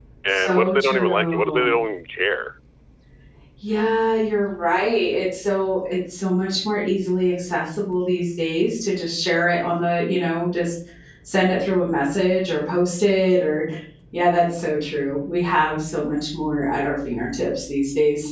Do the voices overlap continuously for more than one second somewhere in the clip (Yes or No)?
Yes